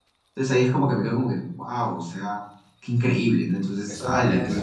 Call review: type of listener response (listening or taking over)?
taking over